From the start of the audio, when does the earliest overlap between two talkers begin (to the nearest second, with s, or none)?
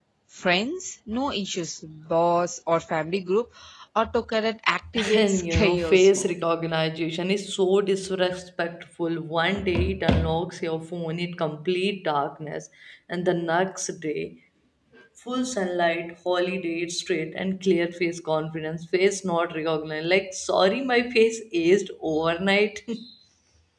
5 s